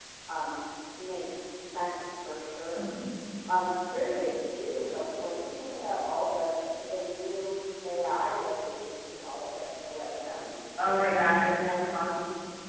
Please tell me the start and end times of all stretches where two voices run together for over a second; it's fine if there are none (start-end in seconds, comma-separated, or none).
10.8-12.1